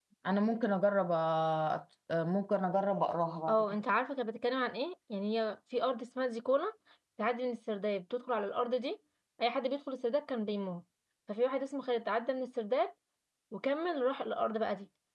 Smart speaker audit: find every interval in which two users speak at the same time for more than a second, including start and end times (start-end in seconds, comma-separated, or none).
none